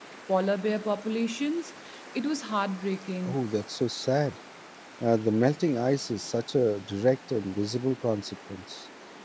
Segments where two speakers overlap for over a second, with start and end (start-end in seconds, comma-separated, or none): none